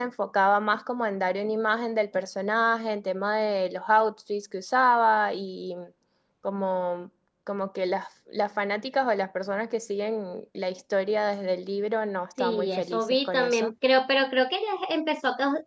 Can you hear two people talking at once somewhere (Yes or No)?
Yes